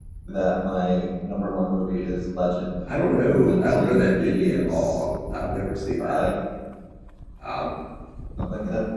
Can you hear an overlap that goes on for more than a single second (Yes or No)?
Yes